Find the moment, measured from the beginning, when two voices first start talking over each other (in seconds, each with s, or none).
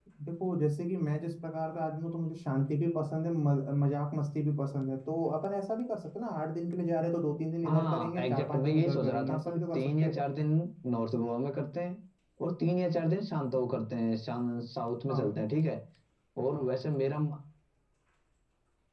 7.6 s